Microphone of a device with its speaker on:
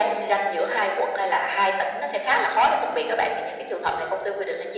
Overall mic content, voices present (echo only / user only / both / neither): echo only